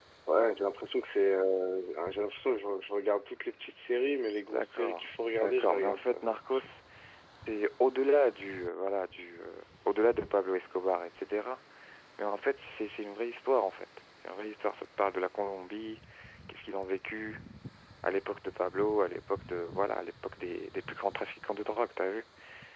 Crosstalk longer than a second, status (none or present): present